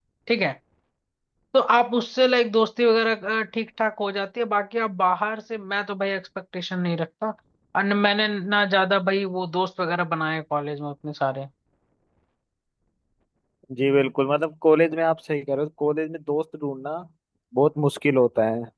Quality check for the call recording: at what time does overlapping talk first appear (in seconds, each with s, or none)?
none